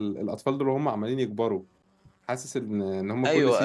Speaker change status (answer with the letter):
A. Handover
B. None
B